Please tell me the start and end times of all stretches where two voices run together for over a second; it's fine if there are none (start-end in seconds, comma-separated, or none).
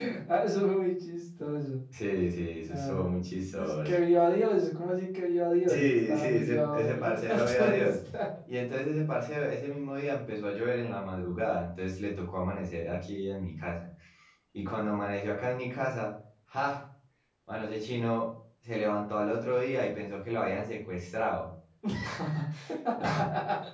5.7-7.9